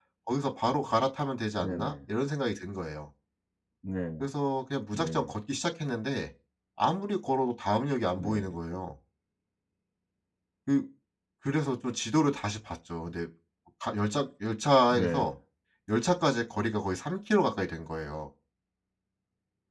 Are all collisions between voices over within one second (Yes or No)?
Yes